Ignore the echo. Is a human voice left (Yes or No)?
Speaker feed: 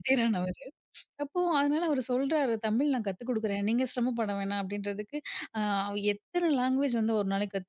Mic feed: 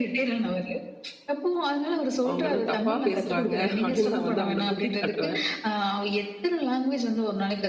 Yes